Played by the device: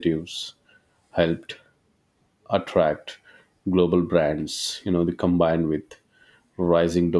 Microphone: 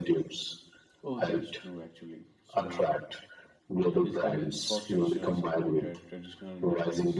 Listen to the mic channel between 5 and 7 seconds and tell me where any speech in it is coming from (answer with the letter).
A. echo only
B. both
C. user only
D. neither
B